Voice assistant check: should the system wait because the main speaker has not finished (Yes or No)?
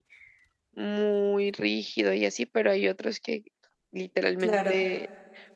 Yes